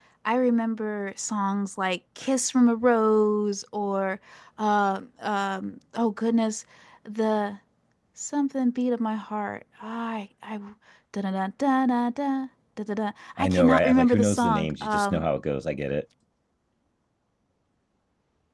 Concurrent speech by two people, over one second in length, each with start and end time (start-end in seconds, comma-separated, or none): 13.4-15.2